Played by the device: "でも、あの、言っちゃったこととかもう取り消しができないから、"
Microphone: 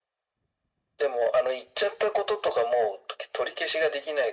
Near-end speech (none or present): none